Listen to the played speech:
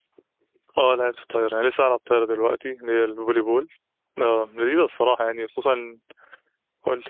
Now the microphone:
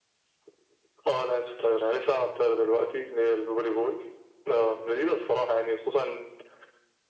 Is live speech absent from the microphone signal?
Yes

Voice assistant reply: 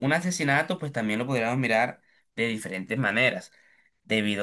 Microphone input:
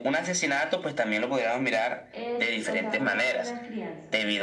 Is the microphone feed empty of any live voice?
No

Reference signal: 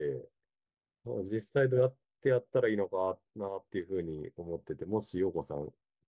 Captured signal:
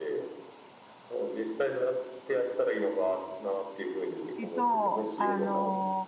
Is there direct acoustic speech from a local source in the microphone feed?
Yes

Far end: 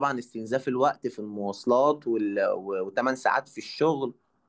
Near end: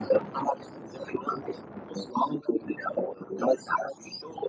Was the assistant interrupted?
No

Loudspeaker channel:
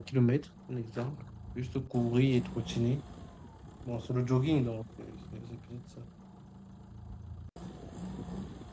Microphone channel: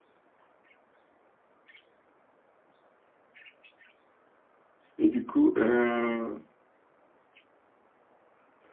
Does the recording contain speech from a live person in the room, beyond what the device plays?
Yes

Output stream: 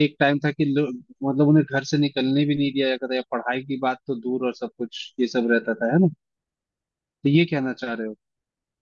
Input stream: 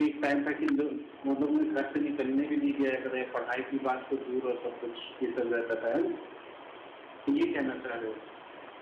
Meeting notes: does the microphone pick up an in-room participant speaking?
No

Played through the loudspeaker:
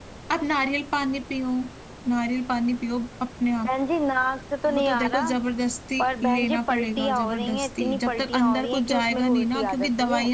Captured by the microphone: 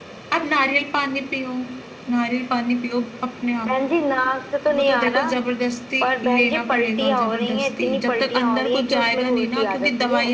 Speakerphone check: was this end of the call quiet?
Yes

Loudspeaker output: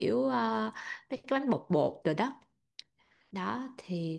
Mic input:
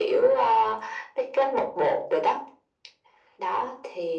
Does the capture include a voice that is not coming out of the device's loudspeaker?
No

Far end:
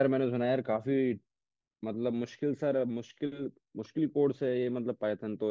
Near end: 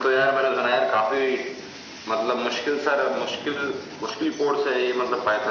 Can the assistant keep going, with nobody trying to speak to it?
Yes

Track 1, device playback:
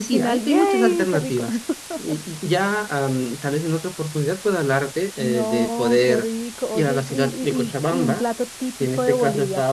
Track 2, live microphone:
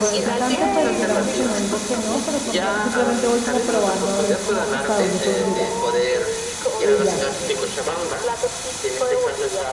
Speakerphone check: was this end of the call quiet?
No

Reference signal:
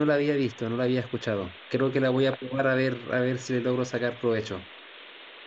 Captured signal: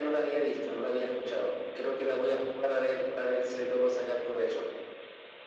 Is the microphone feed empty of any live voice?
Yes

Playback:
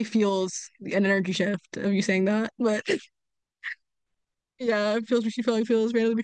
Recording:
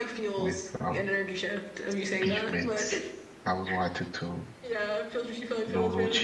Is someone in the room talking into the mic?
Yes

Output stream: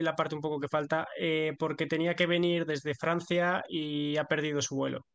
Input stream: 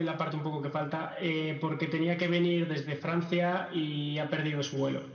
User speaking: No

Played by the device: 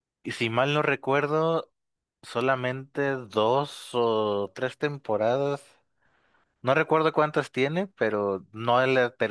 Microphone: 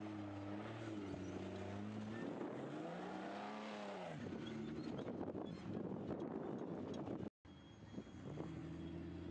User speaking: No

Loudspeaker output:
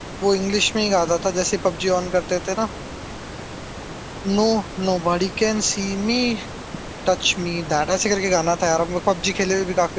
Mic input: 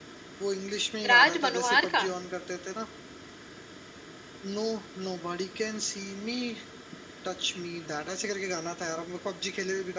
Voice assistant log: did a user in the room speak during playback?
Yes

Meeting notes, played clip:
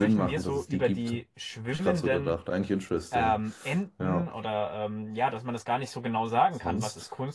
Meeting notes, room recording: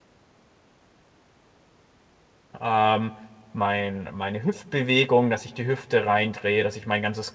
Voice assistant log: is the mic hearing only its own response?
No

